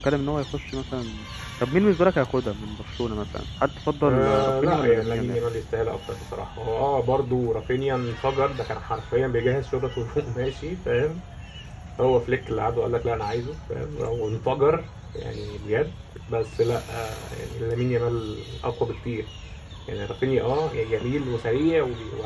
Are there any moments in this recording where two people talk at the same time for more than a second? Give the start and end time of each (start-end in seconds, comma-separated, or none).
4.0-5.4